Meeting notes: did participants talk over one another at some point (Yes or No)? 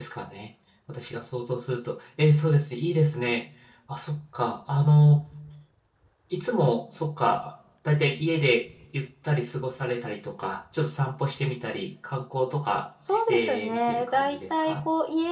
Yes